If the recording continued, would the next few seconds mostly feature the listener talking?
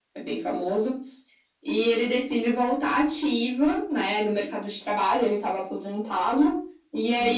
No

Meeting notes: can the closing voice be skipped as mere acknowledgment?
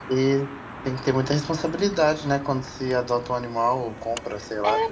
No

